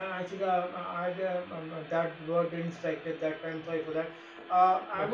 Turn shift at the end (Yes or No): No